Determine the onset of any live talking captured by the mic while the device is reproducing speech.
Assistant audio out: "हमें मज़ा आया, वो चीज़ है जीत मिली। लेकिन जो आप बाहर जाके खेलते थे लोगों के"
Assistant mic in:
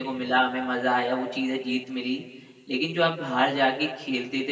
none

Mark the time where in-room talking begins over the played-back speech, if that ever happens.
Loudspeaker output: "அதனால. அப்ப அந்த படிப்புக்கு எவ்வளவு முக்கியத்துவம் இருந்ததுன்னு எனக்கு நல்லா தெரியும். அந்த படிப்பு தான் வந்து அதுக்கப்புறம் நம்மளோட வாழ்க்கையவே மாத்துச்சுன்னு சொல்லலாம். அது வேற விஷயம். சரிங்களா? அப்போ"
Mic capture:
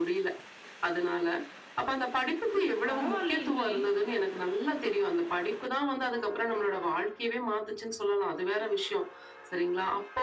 2.5 s

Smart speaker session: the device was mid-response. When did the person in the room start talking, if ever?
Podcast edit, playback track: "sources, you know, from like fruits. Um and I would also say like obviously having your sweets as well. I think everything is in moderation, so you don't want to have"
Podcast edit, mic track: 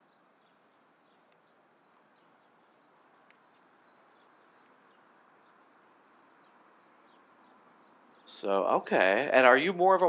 8.2 s

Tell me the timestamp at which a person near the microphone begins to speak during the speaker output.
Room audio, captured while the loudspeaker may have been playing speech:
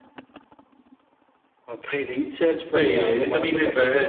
2.7 s

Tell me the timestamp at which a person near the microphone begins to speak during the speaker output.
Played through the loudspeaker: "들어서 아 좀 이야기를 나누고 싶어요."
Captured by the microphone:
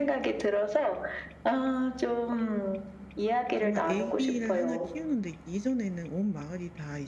3.5 s

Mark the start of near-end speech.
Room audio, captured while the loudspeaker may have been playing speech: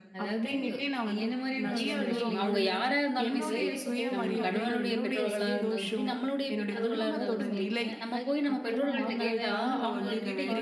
1.6 s

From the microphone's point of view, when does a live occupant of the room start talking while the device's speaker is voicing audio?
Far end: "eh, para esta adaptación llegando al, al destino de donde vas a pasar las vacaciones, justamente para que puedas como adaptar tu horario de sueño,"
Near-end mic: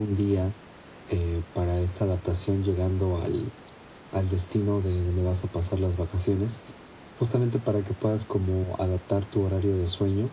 none

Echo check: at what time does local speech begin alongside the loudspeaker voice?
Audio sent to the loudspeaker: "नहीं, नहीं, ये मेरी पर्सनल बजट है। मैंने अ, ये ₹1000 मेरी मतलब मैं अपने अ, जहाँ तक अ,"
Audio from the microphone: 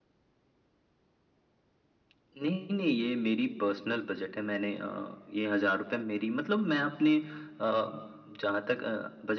none

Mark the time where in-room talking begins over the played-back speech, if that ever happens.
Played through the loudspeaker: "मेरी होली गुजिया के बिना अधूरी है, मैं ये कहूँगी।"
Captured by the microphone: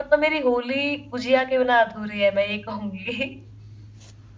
none

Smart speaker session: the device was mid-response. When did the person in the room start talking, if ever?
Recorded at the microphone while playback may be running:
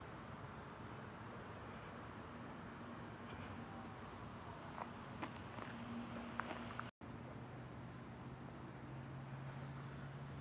none

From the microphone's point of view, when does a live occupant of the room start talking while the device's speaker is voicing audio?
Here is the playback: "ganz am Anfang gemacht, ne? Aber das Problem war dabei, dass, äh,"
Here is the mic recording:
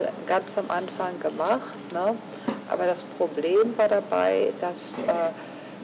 none

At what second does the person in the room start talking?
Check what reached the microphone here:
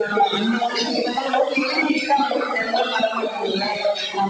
none

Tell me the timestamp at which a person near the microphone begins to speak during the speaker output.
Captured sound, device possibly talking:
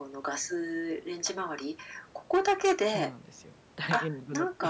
2.9 s

